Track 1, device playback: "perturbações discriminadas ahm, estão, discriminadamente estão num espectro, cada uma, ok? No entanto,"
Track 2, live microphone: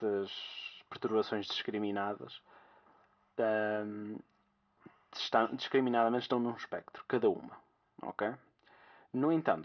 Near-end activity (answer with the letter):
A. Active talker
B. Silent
B